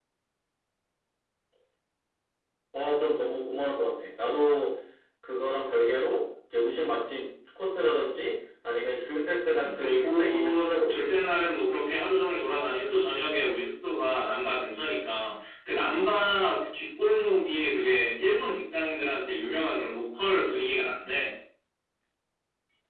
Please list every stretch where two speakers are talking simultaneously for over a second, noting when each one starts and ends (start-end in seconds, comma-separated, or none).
9.5-11.1